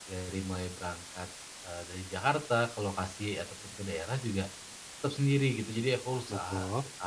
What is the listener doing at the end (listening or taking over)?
listening